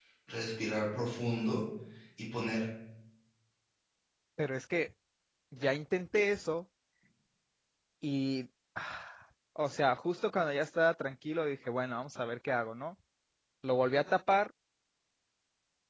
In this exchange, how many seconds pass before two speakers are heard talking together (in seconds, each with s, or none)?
none